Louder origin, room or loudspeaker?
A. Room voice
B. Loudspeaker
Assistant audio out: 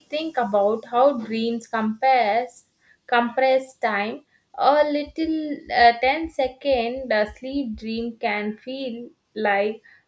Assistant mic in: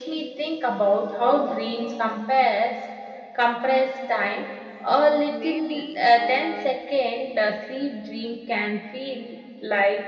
B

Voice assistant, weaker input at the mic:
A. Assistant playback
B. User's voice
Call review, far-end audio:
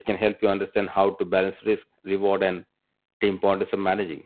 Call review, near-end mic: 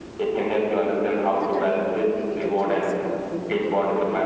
B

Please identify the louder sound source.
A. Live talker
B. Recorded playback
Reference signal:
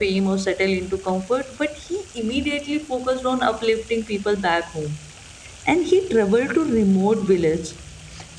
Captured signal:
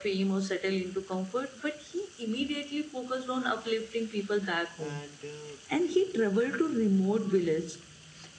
B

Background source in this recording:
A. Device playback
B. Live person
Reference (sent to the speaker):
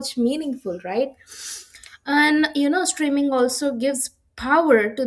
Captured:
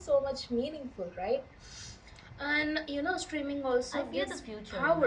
B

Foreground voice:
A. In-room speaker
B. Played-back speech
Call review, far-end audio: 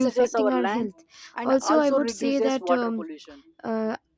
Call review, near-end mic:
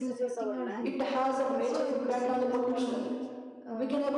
A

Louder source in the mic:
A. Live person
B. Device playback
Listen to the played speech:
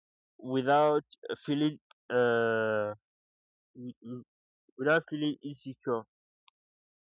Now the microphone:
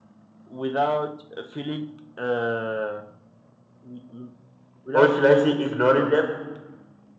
A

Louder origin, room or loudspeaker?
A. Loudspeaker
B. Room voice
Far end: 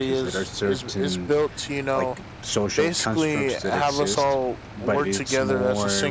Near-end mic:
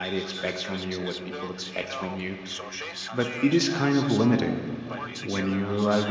B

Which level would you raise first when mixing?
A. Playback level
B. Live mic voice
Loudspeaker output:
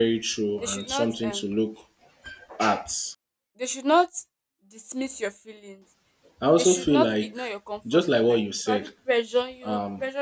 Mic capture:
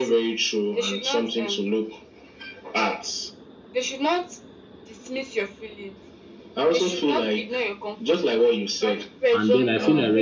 A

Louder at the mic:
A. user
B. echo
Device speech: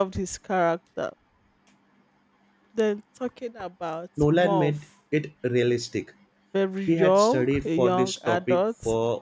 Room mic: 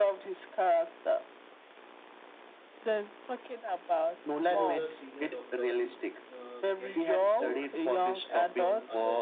B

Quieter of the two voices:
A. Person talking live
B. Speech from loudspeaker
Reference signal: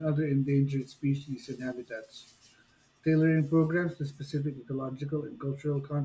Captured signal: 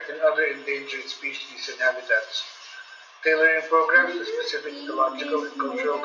A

